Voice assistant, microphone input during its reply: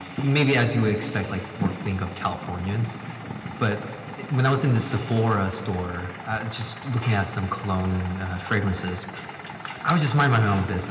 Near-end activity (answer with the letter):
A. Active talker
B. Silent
B